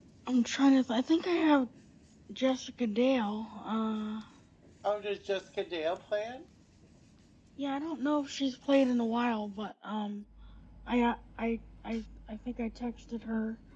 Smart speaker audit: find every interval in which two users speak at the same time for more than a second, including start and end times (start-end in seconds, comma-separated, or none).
none